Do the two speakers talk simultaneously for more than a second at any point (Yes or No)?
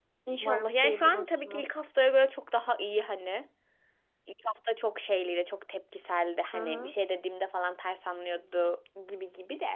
Yes